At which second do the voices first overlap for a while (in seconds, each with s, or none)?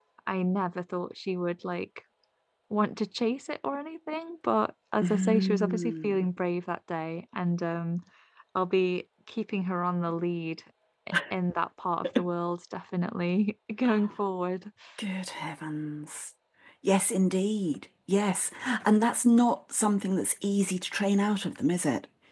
5.0 s